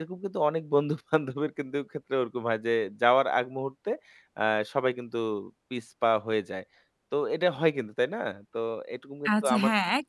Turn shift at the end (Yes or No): Yes